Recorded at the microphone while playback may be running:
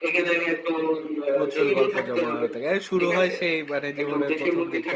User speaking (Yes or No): Yes